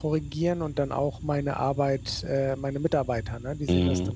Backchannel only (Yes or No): No